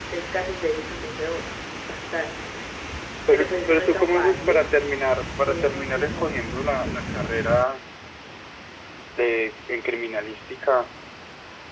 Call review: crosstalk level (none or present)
present